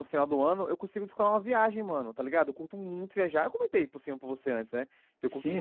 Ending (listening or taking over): taking over